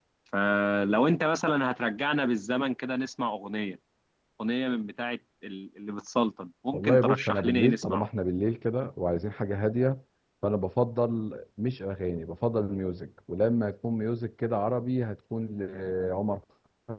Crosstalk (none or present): present